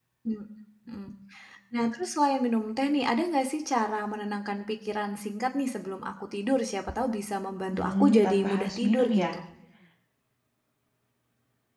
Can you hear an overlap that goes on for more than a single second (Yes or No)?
Yes